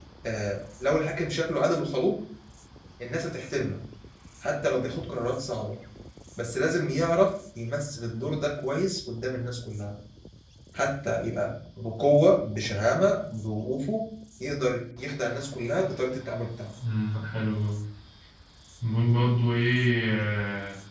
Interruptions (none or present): none